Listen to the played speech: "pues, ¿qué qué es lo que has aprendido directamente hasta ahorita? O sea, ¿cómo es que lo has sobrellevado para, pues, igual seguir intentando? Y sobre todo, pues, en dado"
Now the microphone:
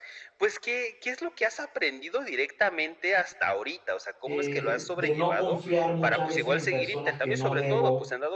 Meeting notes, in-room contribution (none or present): present